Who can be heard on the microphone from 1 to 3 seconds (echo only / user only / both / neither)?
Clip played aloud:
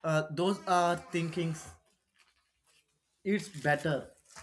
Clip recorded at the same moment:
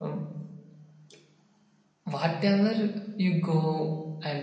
user only